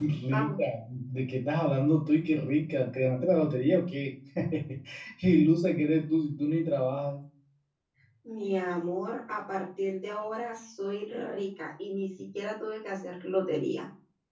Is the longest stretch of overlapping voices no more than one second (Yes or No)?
Yes